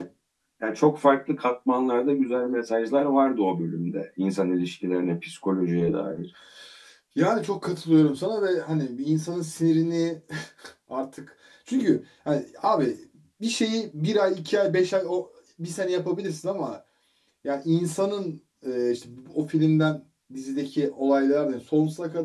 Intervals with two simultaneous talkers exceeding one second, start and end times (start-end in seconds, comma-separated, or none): none